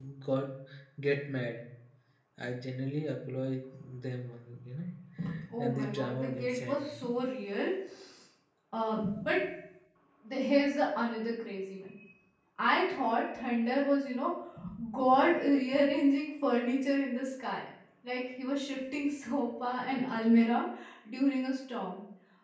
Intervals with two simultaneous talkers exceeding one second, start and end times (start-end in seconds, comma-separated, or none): 5.6-6.9